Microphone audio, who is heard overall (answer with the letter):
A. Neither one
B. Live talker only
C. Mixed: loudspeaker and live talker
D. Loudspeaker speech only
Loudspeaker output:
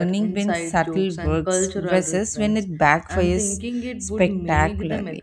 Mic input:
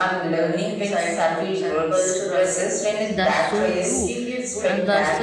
C